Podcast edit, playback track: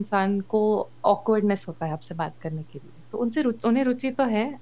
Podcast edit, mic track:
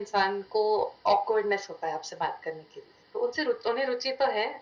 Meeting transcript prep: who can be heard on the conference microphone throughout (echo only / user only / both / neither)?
echo only